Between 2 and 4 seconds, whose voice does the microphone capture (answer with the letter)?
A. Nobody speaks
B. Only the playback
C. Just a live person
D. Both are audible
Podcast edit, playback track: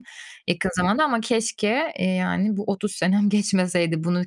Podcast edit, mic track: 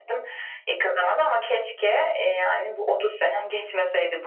B